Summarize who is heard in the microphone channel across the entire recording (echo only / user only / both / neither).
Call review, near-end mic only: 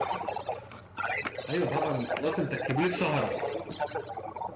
both